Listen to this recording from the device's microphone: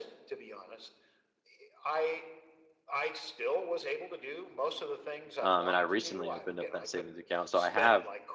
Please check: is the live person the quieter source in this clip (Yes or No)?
No